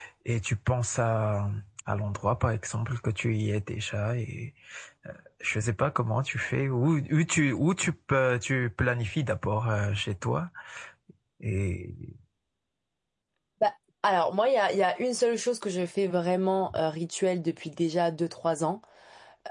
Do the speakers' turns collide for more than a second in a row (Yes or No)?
No